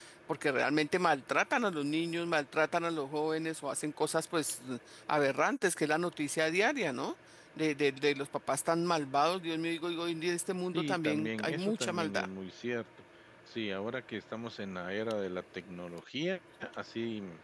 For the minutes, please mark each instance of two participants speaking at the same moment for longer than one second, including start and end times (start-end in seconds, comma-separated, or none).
10.7-12.3